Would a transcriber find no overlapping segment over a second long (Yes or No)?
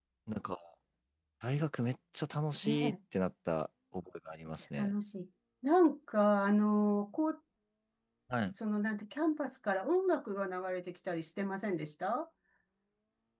Yes